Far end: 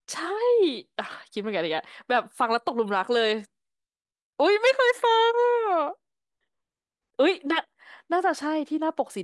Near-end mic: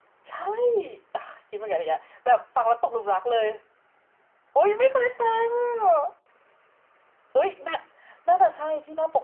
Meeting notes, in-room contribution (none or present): none